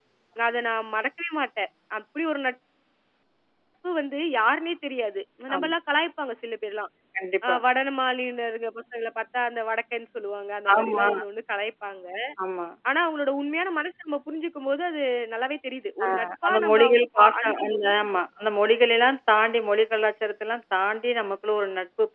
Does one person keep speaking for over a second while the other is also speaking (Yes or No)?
Yes